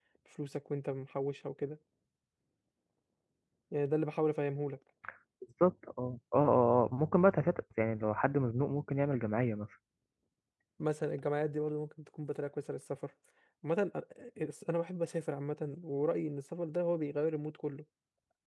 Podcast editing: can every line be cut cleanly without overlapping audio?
Yes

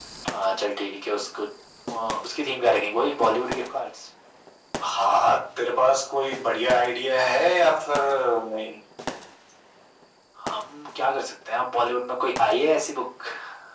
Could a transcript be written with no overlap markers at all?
Yes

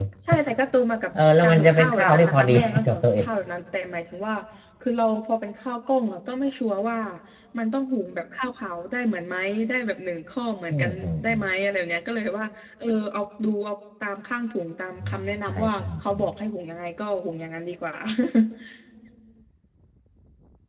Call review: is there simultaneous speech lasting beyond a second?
Yes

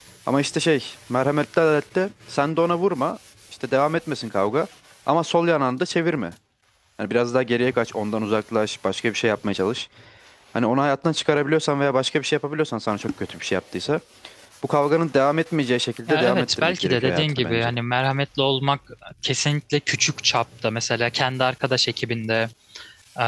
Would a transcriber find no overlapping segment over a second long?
No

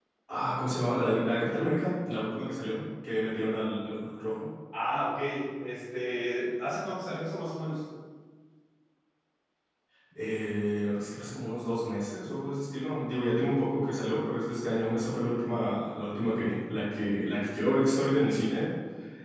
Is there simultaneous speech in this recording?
No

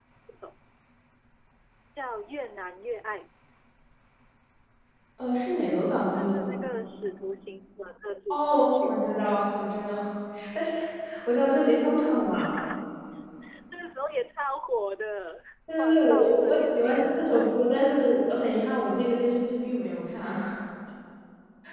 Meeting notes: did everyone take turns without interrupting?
No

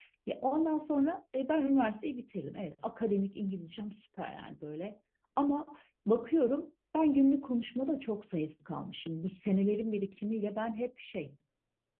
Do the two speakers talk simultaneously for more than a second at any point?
No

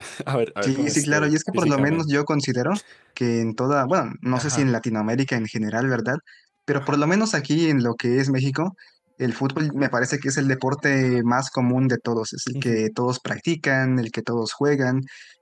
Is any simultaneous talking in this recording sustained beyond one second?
Yes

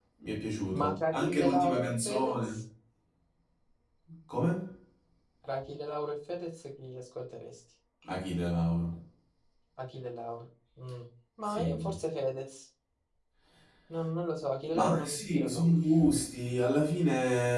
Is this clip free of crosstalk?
No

